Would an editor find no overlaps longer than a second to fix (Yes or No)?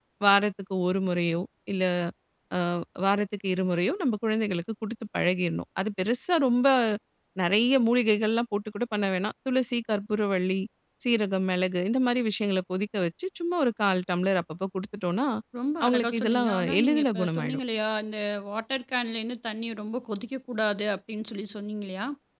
No